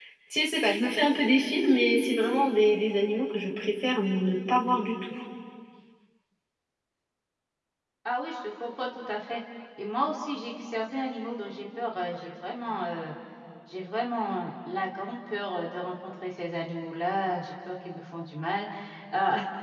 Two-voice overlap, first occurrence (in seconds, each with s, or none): none